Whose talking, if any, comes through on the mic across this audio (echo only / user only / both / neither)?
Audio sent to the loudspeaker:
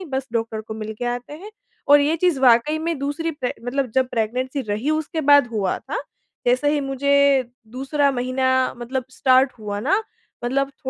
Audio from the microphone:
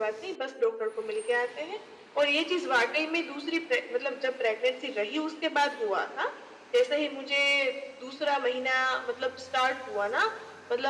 echo only